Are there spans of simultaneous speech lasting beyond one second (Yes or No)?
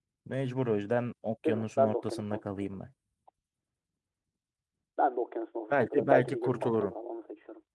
Yes